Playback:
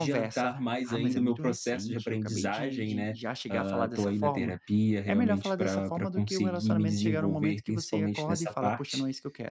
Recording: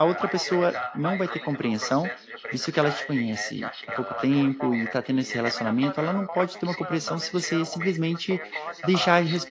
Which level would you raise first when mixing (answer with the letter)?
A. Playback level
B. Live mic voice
A